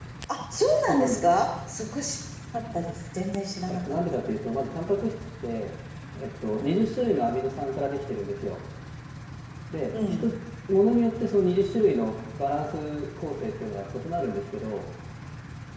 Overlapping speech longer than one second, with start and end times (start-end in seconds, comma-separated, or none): none